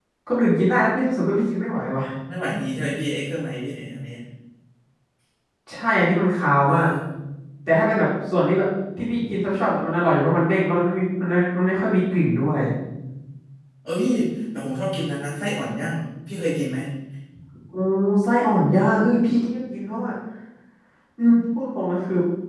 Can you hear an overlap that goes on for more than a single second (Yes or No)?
No